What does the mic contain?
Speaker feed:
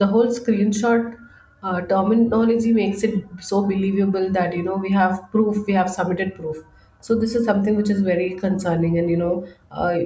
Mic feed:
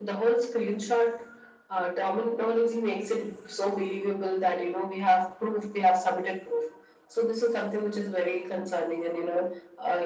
echo only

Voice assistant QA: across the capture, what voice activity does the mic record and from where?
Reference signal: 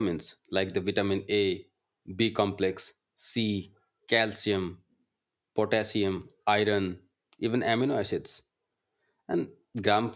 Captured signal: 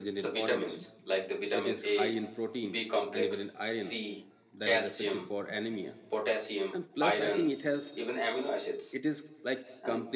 both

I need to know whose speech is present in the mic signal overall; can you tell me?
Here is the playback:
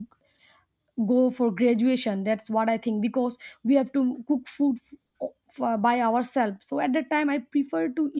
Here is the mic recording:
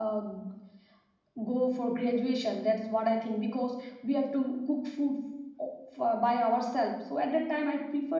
echo only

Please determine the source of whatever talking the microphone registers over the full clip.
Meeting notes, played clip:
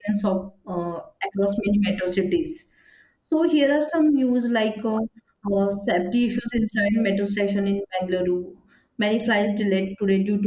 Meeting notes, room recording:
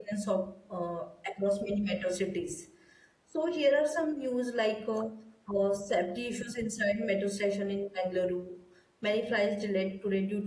echo only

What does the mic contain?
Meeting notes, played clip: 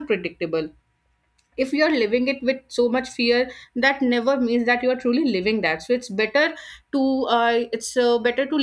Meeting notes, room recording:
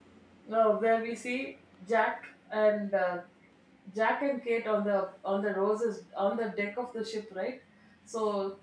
user only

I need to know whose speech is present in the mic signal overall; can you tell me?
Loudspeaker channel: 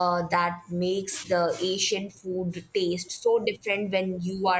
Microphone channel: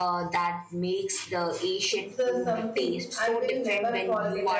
both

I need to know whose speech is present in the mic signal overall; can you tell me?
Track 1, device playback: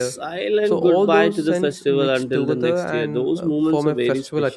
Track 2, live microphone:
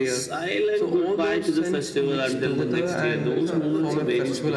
both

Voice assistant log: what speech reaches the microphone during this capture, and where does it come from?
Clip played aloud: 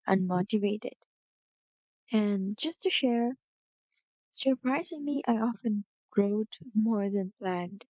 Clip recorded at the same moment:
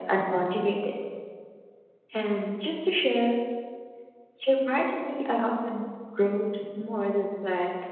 echo only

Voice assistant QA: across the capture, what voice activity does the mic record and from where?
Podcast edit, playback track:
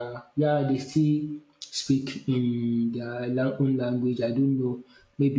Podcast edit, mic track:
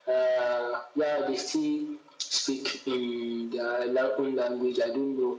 echo only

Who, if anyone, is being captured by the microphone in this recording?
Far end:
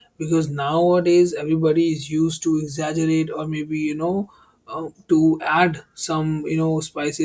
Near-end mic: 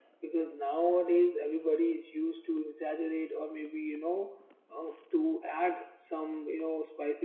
echo only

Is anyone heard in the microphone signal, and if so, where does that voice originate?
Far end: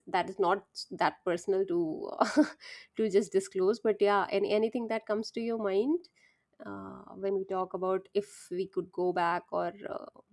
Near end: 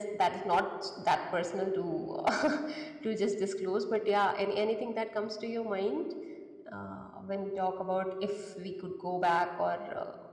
echo only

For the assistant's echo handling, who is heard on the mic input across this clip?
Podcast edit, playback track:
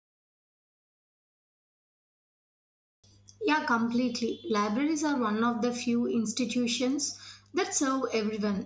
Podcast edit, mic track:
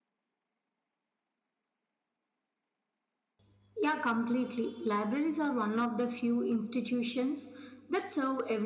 echo only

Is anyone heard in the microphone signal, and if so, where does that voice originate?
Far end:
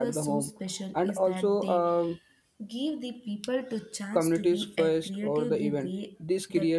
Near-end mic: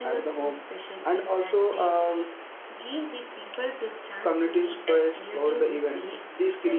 echo only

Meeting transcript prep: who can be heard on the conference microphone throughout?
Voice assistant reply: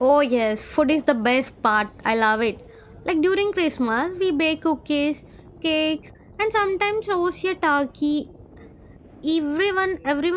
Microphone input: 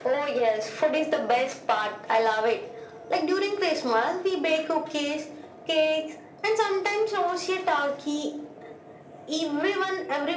echo only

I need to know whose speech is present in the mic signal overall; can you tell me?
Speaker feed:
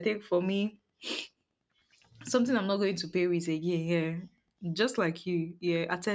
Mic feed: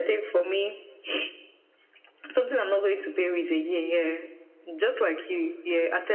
echo only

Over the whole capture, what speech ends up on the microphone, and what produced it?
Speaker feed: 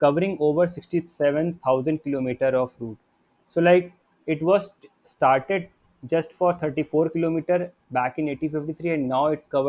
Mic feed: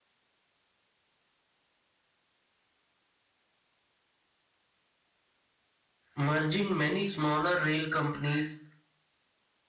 user only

